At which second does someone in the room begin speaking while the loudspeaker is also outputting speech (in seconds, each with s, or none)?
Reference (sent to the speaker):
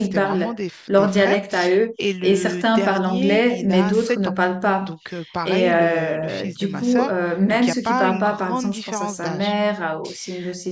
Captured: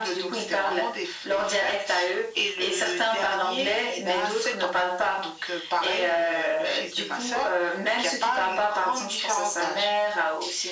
none